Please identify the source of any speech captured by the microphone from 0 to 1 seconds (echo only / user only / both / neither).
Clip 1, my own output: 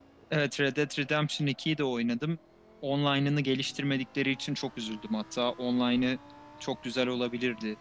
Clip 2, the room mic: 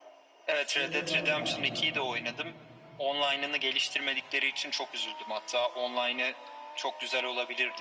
both